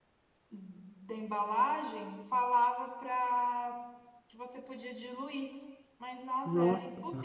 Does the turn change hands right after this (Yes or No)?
No